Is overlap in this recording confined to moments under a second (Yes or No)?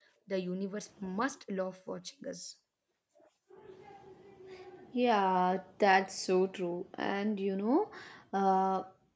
Yes